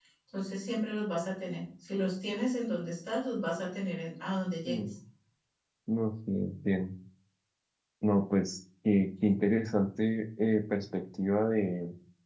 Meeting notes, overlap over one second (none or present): none